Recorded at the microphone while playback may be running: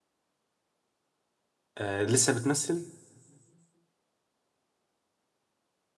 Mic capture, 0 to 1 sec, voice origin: neither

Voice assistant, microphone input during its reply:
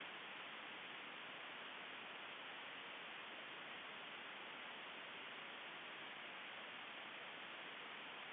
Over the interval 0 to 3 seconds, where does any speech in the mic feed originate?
neither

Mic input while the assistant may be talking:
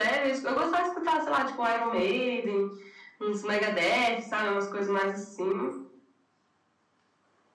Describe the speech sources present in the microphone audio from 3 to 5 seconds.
echo only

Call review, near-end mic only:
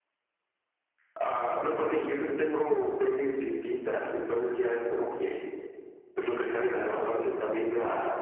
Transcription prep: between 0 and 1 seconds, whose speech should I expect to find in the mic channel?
neither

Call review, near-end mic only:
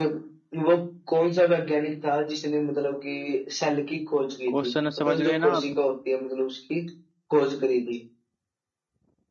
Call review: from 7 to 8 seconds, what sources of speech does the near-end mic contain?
echo only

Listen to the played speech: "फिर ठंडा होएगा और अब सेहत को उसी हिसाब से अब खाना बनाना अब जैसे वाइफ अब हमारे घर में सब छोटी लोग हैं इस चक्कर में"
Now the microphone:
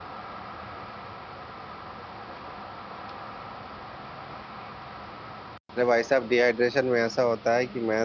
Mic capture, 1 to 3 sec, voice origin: neither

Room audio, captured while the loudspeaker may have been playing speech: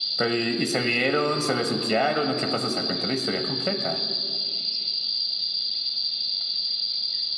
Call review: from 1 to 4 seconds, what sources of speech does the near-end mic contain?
echo only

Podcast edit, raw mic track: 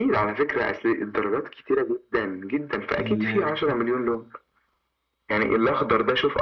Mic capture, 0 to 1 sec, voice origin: echo only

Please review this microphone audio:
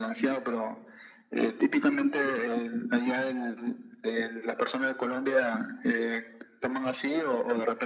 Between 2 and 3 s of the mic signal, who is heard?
echo only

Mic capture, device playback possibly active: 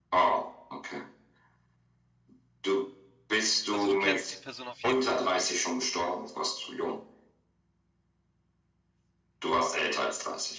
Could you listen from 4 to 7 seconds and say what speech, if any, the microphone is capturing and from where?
both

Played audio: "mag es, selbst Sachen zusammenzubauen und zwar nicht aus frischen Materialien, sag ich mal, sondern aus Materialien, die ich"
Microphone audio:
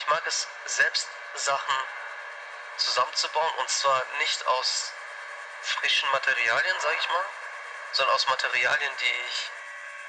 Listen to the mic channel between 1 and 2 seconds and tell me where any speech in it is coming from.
echo only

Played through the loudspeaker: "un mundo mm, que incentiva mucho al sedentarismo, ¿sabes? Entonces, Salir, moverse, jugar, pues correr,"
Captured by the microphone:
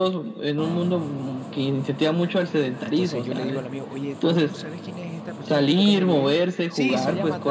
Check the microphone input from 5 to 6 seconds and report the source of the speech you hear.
both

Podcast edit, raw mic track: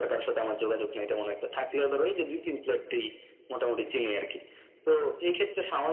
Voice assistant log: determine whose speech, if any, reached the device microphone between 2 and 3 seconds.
echo only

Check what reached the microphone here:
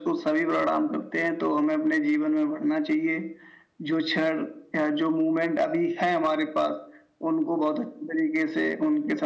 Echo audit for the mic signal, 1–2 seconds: echo only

